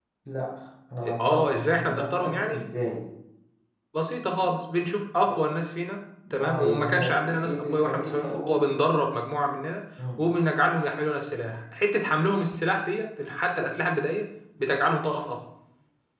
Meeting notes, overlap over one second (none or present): present